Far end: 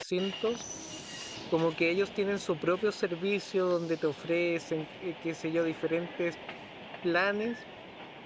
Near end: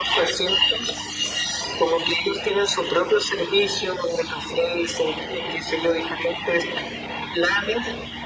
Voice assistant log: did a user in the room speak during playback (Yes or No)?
No